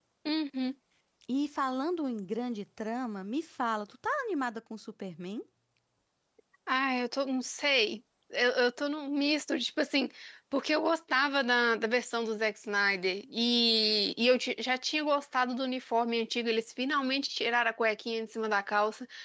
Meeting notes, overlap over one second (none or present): none